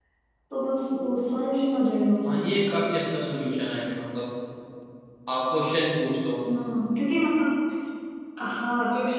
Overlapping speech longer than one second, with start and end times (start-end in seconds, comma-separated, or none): none